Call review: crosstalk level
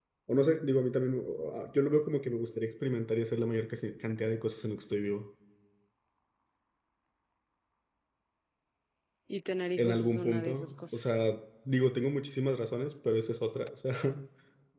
present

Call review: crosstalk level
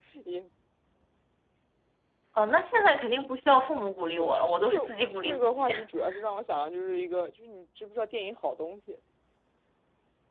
present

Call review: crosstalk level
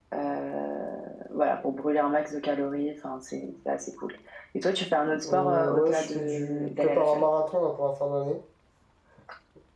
present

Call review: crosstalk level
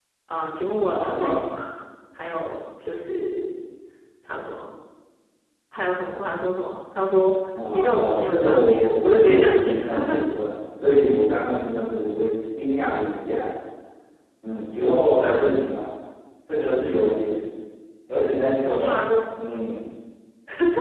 present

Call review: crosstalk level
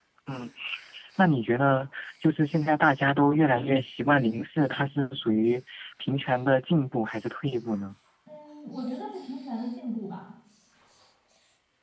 none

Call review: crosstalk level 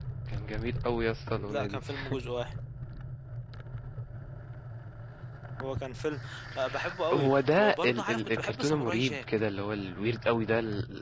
present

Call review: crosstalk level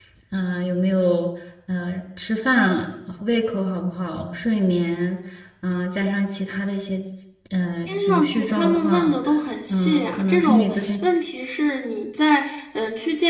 present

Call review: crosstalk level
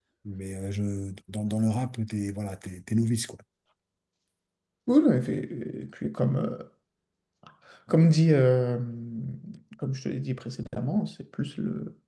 none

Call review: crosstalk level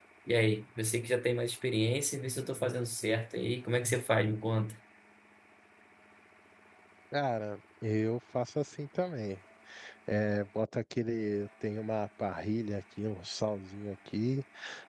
none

